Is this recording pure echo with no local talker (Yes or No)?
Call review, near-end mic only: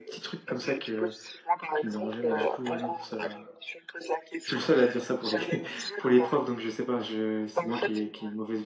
No